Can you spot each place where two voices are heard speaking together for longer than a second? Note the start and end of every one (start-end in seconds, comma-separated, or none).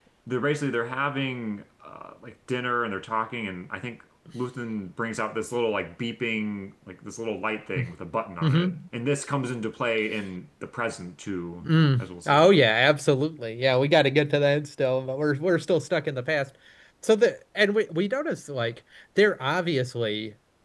none